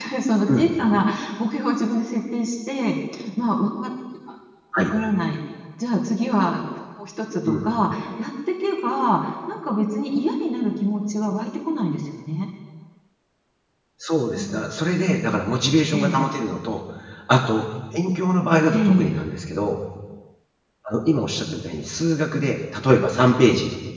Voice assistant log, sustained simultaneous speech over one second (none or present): none